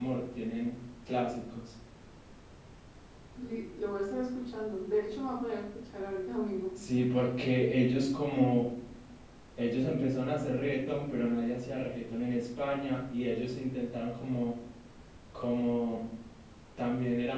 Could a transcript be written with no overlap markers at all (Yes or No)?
Yes